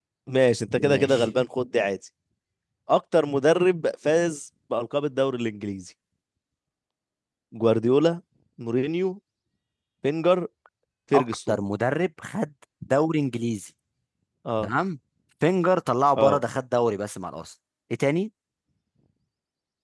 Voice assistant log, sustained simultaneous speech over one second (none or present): none